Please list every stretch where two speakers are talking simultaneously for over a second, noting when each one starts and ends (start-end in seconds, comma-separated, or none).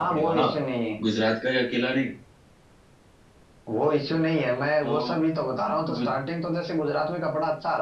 none